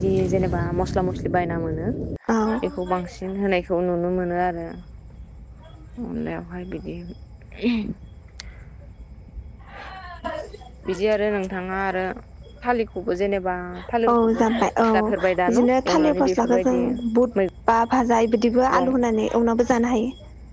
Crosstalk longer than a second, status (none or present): present